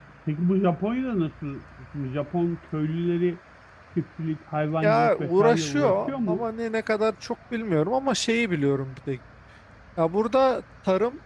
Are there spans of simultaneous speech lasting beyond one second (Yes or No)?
Yes